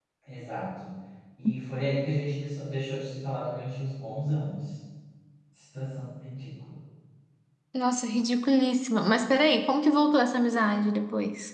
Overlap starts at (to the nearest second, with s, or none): none